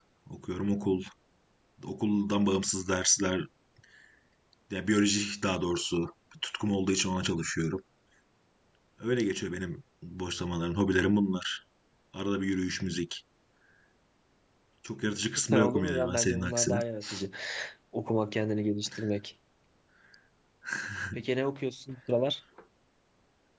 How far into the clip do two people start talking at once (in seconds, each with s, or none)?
15.5 s